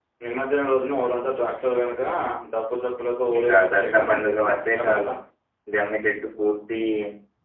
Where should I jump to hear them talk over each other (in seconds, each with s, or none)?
3.4 s